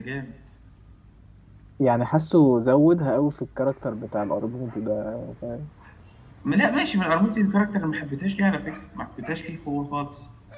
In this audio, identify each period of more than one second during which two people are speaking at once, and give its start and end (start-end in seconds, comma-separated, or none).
none